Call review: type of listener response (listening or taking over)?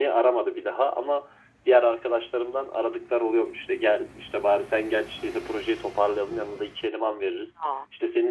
listening